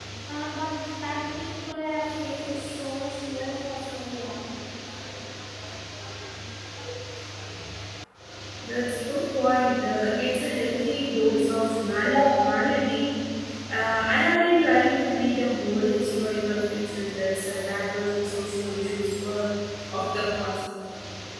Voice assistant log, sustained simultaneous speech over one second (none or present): none